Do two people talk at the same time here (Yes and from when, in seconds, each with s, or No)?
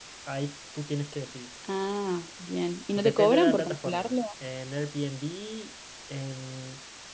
Yes, from 3.0 s